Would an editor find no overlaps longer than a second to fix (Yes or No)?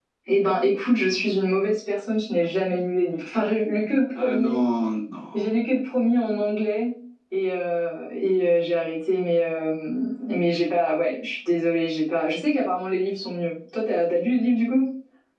Yes